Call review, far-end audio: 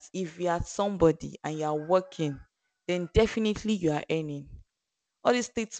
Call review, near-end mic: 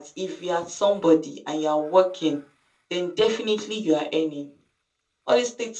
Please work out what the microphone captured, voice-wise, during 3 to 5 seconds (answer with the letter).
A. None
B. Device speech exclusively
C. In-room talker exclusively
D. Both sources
B